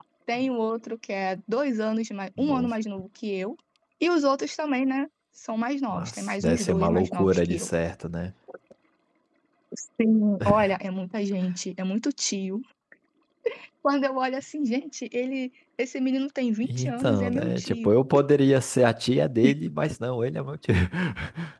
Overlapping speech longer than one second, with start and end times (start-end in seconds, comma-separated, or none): 5.9-7.7, 16.6-17.9